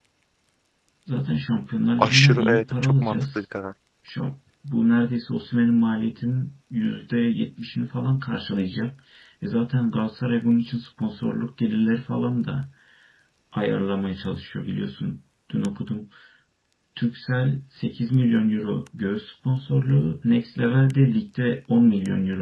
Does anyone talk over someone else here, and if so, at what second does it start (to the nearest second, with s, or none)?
2 s